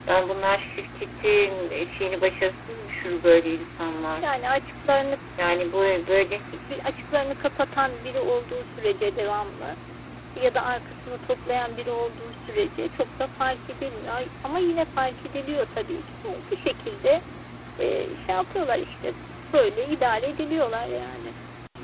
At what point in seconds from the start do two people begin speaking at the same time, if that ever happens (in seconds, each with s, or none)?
none